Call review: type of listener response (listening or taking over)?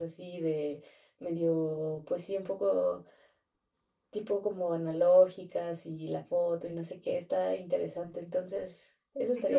taking over